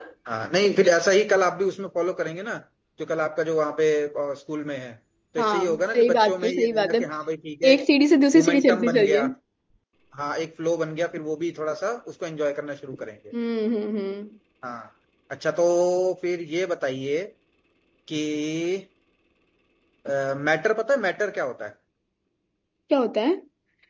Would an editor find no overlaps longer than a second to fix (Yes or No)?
No